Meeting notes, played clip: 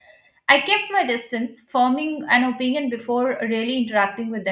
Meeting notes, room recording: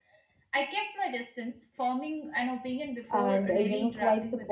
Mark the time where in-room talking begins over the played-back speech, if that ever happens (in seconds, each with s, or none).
3.1 s